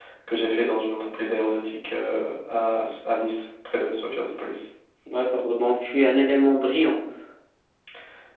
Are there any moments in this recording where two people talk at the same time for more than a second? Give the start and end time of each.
none

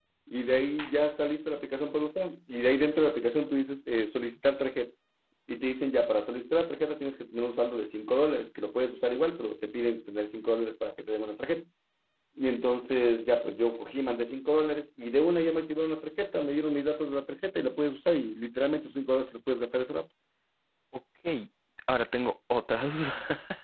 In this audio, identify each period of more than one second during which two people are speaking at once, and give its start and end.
none

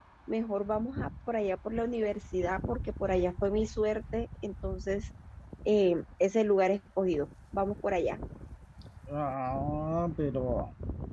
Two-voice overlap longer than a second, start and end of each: none

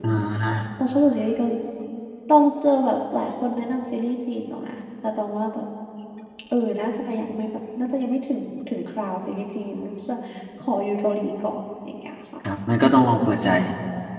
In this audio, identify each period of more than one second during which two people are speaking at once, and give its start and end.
none

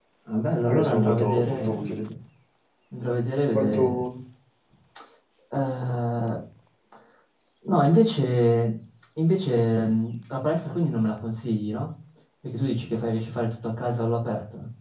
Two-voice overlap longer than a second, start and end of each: 0.7-1.9

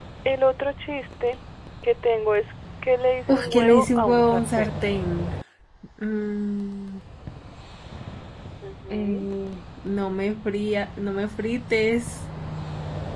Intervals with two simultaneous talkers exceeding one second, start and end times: 3.3-4.8

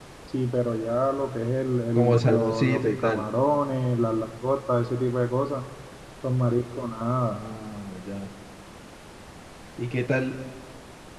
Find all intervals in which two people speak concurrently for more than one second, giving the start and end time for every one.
1.9-3.2

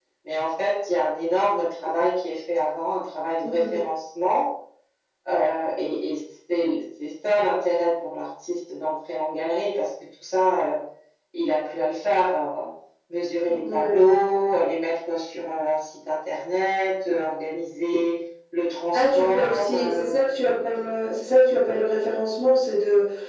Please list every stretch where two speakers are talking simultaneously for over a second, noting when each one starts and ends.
18.9-20.2

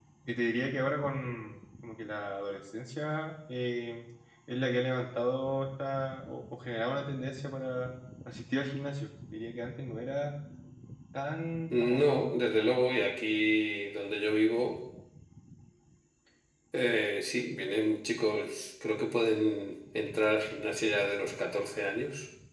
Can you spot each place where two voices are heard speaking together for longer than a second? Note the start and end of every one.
none

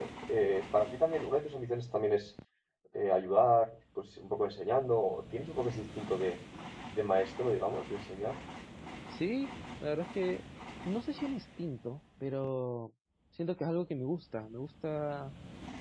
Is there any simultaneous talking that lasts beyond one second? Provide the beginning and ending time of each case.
none

